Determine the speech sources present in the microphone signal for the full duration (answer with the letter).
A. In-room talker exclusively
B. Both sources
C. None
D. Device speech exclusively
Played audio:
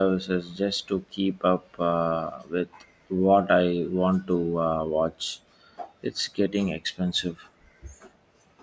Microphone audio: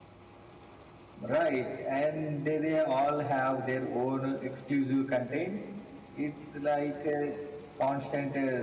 A